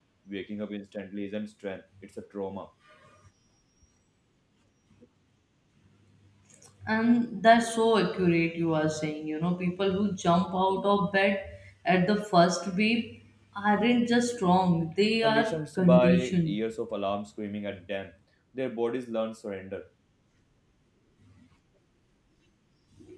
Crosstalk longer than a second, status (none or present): present